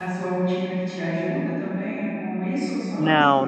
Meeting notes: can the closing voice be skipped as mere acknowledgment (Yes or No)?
No